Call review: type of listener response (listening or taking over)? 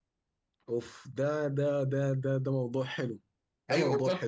taking over